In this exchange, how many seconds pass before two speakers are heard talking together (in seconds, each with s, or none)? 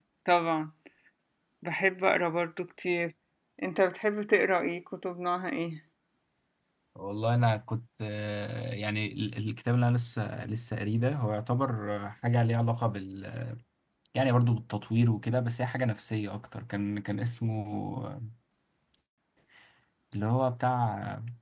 none